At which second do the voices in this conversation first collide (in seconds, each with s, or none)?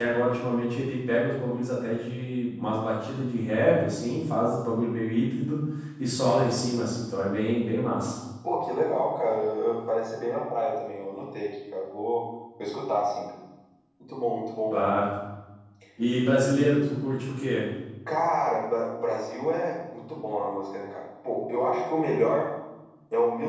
none